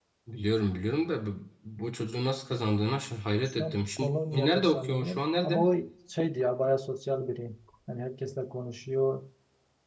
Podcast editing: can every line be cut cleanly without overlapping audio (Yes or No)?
No